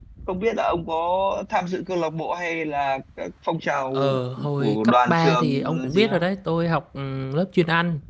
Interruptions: present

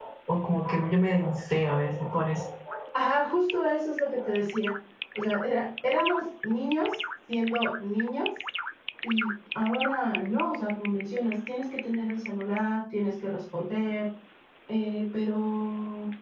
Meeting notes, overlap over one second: none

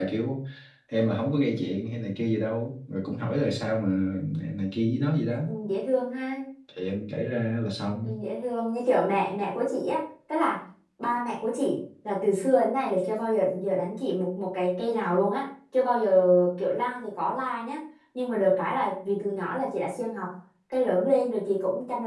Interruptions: none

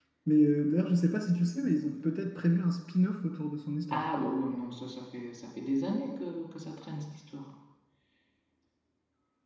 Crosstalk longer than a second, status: none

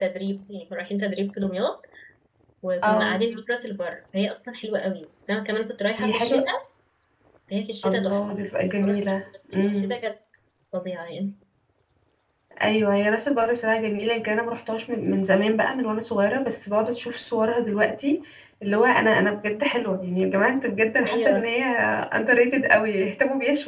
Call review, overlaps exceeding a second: none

